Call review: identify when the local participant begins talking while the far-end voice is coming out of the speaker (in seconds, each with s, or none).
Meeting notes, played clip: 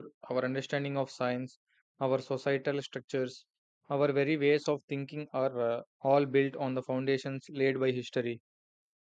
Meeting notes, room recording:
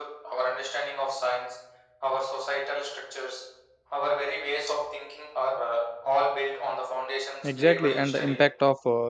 7.4 s